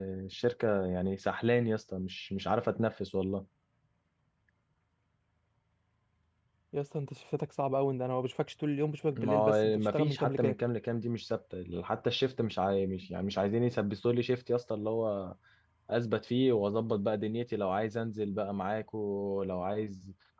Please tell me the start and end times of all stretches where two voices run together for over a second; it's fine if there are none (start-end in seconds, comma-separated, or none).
9.2-10.6